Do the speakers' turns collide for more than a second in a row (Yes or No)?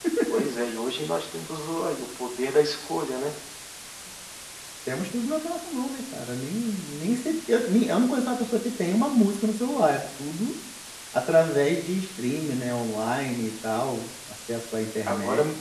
No